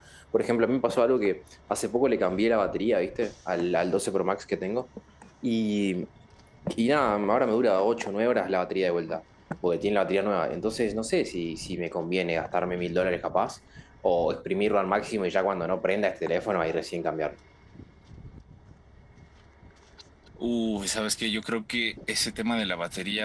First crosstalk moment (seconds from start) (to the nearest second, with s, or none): none